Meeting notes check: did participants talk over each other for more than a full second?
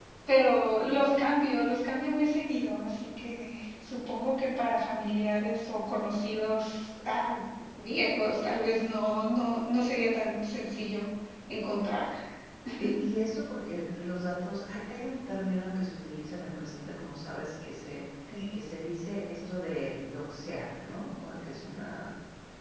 No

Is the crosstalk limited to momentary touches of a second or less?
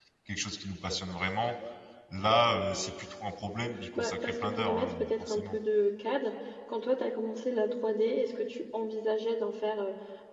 No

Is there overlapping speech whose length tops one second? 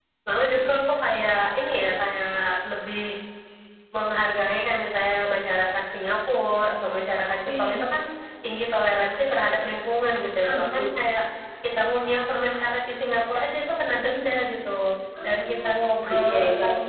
Yes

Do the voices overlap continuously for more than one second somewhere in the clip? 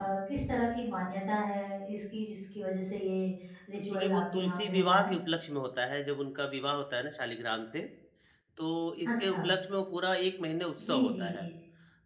Yes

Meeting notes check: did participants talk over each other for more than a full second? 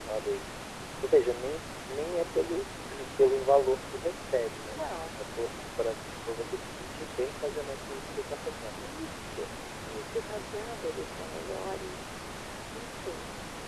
No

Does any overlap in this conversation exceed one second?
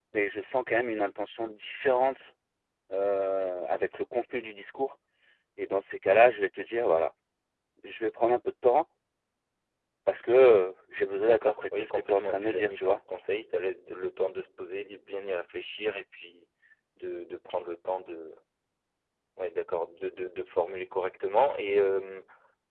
Yes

